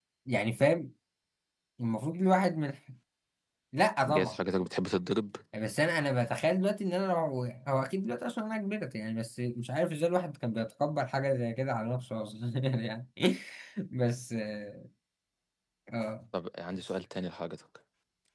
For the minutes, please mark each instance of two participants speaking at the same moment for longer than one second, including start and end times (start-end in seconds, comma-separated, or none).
none